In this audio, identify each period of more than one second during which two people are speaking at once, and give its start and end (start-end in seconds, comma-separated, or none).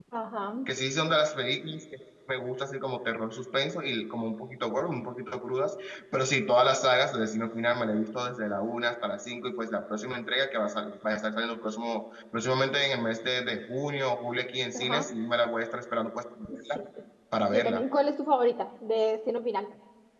none